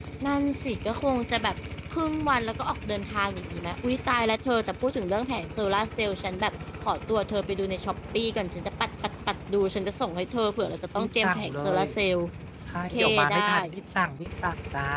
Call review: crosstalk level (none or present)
present